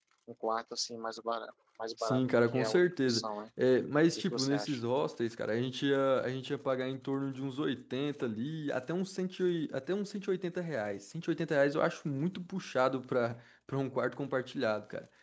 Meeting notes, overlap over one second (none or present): present